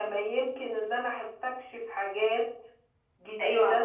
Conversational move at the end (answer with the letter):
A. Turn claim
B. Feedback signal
A